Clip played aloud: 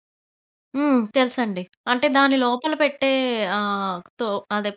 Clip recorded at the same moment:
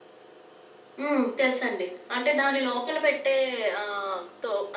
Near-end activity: none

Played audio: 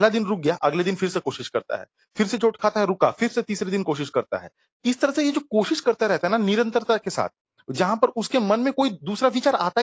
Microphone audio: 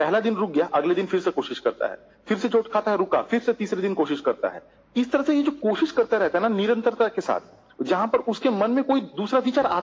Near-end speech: none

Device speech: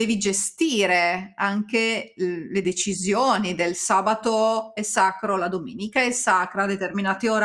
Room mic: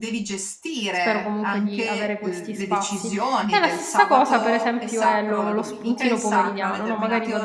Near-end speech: present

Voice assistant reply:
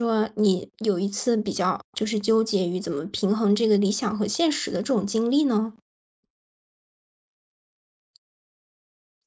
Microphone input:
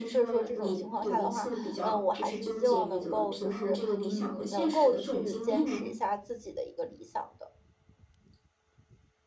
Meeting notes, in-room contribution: present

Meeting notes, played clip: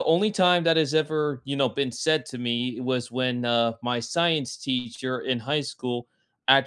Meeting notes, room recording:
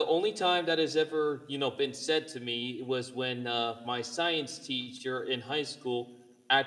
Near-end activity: none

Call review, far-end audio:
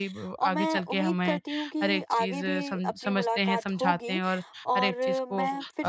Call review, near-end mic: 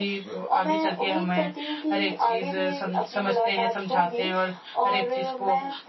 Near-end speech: none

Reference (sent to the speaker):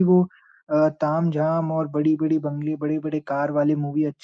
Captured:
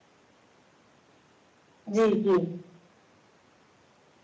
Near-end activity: present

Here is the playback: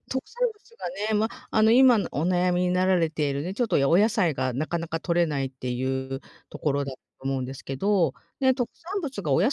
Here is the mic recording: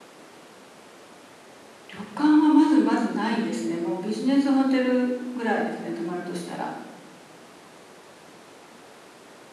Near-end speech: present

